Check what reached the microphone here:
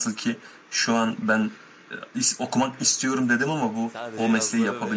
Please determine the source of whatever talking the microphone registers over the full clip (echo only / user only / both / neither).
both